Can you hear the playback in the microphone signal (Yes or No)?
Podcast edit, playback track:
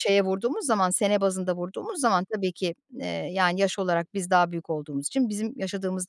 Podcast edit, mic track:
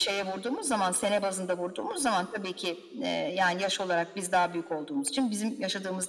Yes